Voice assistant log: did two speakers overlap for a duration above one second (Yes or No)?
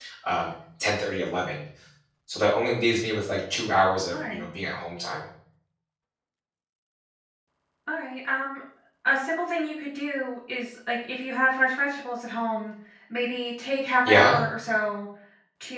No